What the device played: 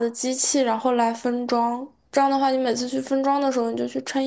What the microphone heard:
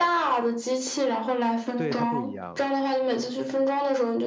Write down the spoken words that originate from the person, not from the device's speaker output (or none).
对它不一样了。